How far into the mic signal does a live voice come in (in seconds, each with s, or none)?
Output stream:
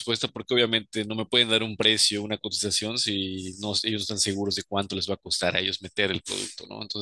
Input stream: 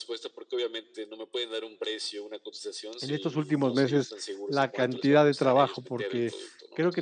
3.0 s